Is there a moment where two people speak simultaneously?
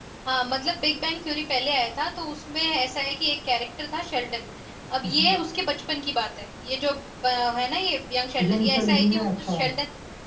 Yes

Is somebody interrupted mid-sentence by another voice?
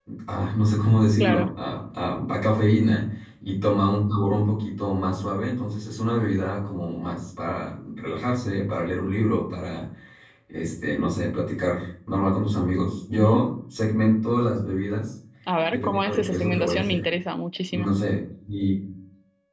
Yes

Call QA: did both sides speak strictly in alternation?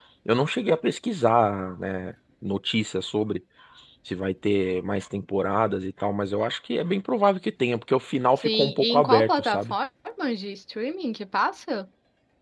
No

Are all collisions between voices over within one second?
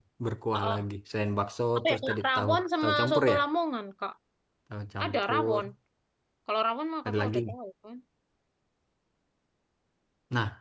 No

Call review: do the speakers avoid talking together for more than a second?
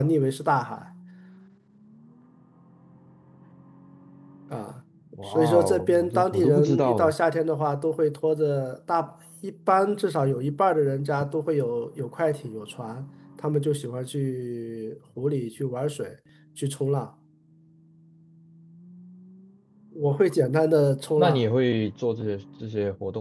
No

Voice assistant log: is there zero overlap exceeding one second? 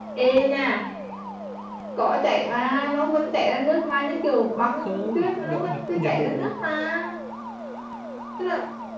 No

